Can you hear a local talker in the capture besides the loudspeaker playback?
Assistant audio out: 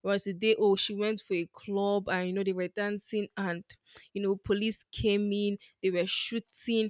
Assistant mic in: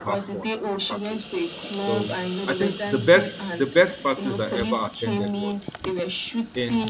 Yes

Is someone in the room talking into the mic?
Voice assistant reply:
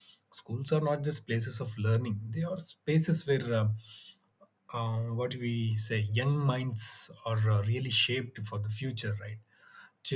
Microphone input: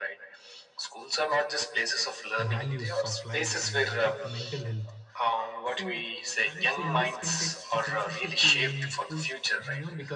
Yes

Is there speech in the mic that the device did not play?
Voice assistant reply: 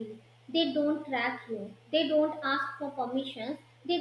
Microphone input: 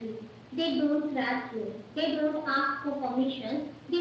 No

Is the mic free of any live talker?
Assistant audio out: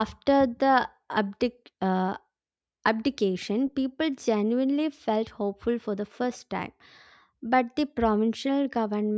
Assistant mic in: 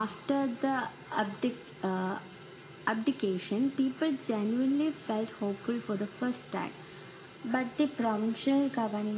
Yes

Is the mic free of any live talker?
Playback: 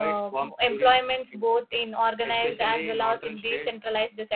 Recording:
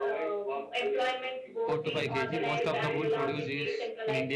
No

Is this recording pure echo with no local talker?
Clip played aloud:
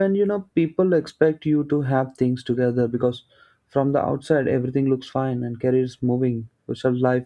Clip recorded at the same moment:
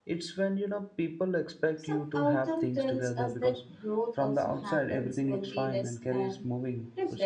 No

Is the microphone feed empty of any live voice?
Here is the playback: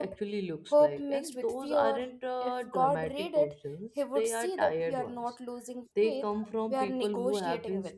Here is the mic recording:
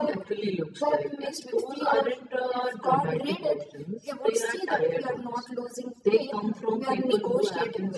Yes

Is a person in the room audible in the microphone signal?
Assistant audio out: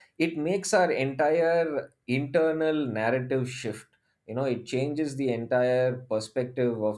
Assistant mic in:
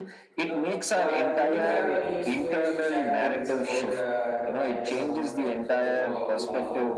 Yes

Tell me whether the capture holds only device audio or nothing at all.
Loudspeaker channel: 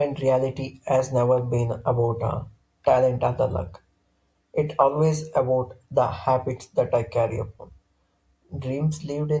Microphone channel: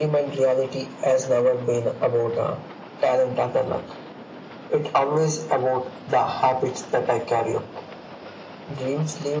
Yes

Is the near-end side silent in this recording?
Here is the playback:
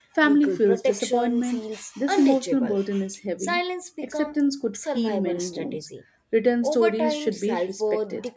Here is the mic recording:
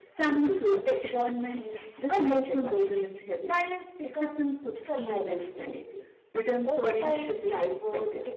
Yes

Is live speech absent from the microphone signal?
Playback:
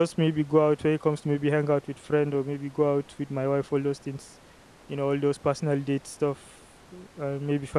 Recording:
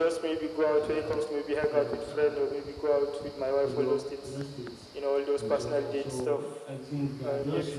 No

